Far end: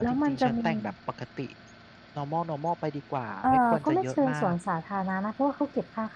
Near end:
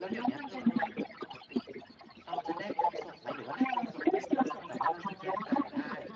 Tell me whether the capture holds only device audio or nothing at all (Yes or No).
No